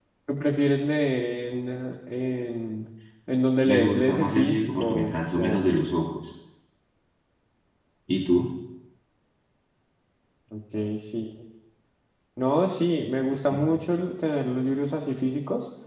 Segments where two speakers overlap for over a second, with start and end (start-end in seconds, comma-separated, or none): 3.6-5.7